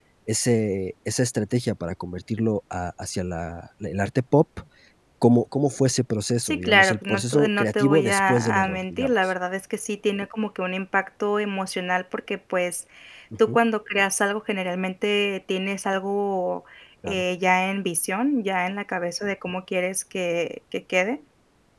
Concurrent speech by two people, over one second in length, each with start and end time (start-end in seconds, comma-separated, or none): 6.4-9.1